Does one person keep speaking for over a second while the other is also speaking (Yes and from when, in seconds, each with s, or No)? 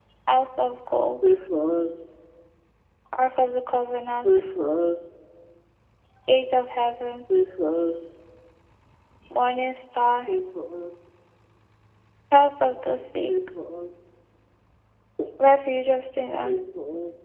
No